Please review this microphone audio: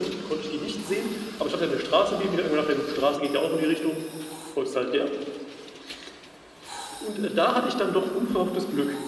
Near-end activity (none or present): none